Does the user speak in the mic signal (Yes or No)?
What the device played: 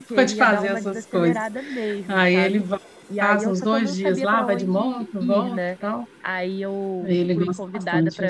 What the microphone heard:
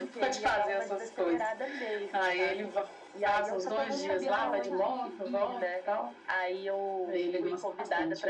Yes